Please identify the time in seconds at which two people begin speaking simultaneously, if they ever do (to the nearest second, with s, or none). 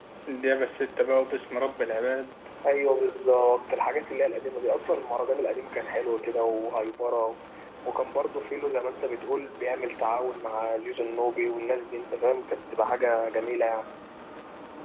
none